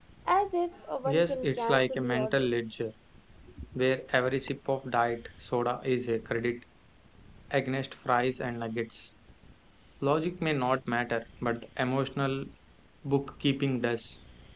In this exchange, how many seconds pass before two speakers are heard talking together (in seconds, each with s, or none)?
1.0 s